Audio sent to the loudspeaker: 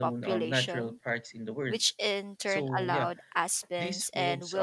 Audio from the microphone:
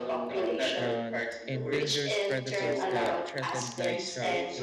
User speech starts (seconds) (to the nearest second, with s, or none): 1 s